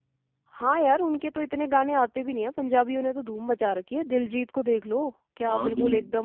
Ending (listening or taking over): taking over